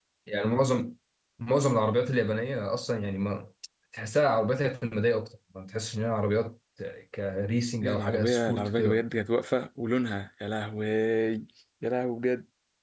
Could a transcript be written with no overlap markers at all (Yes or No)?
No